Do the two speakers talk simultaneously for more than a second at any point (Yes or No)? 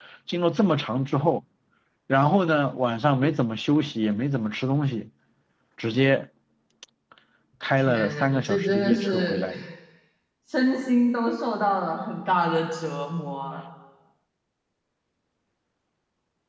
Yes